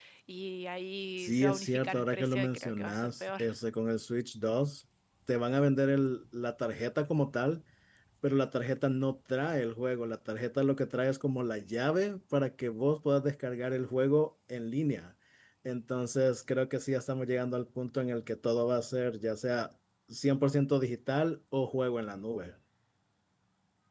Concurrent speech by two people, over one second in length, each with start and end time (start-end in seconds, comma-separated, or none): 1.2-3.4